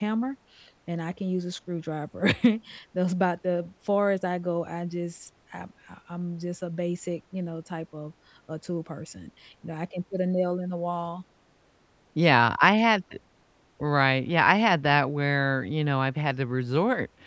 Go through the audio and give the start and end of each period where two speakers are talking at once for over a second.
none

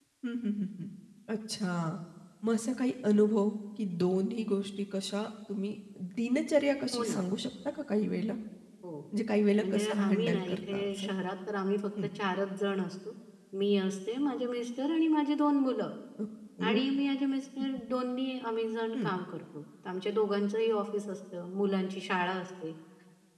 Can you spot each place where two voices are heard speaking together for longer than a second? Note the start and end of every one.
9.6-11.1

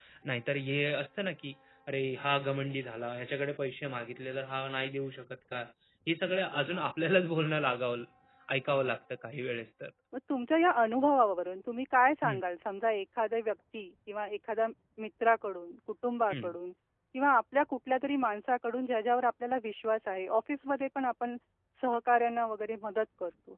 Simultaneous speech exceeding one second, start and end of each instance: none

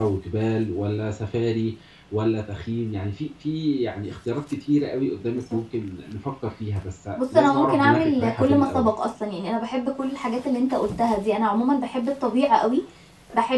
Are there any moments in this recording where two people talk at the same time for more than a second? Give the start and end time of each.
7.3-8.9

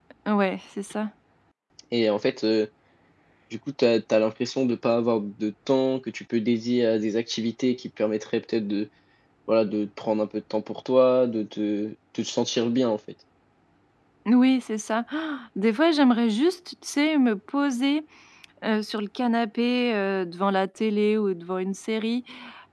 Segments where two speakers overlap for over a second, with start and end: none

